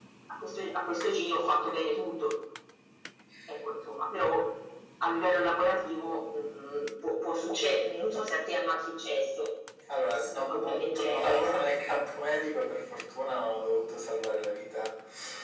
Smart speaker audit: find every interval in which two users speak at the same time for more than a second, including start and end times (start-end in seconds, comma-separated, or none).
10.2-11.4